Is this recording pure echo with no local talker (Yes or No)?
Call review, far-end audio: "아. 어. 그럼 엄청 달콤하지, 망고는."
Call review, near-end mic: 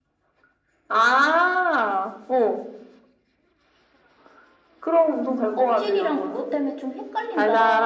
No